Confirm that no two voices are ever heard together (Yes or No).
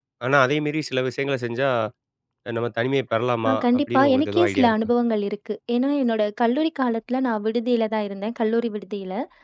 No